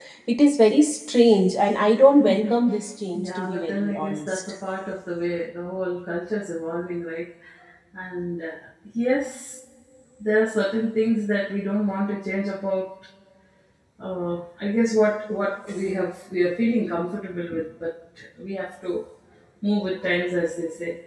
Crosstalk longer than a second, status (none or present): present